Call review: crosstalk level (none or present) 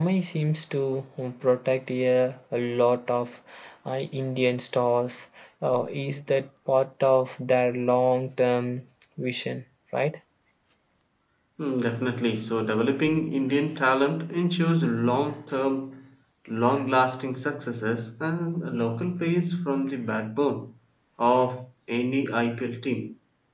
none